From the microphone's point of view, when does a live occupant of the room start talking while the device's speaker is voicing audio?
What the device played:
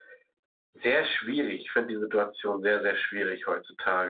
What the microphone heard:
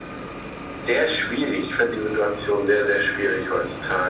none

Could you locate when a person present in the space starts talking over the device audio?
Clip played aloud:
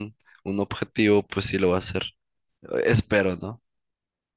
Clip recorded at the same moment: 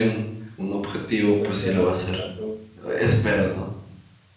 1.2 s

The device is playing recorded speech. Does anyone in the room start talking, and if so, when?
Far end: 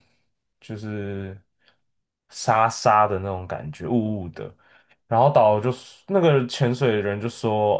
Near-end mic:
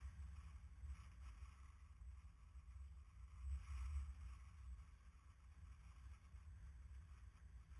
none

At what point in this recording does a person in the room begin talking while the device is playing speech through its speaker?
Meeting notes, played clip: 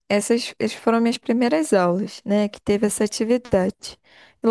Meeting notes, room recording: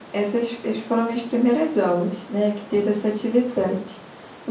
none

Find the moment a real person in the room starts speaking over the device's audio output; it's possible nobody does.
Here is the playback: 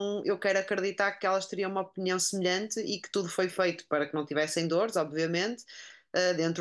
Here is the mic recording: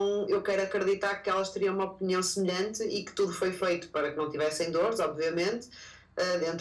none

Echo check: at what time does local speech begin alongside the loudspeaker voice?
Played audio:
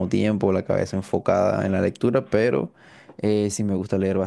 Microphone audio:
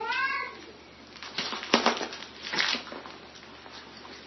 none

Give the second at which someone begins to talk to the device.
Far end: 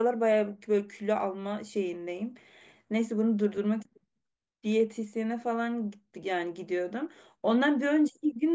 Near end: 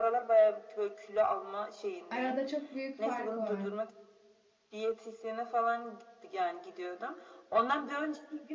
2.1 s

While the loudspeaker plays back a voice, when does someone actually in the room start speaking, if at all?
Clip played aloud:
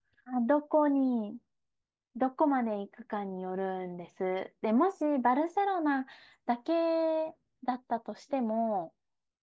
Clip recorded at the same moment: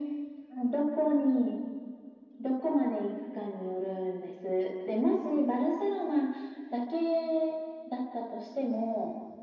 none

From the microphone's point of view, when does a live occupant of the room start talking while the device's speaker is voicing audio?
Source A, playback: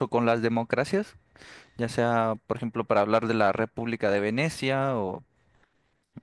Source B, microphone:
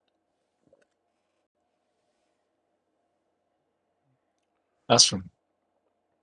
4.9 s

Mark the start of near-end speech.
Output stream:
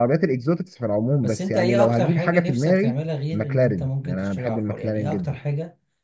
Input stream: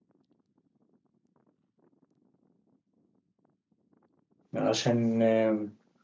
4.5 s

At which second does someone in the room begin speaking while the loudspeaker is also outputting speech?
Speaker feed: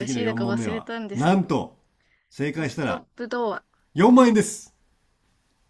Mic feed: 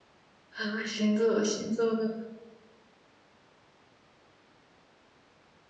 0.5 s

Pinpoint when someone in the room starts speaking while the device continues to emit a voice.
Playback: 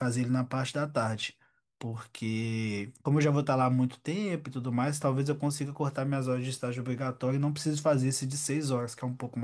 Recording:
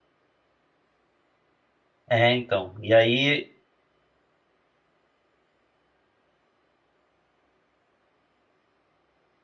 2.1 s

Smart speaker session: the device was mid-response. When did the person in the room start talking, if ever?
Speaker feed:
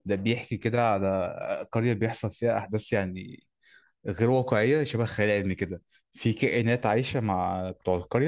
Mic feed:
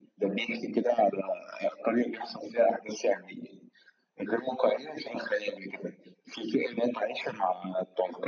none

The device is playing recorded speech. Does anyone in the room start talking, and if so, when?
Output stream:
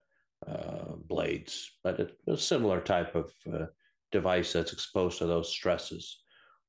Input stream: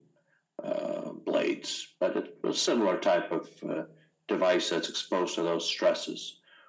none

